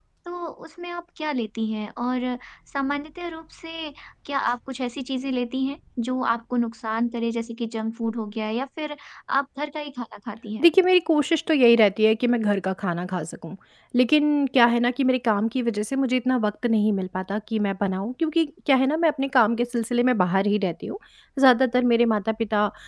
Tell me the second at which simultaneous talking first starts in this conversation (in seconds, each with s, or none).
none